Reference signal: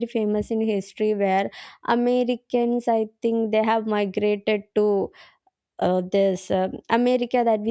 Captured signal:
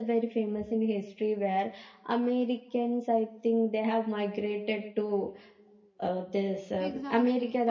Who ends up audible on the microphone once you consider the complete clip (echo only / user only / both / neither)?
both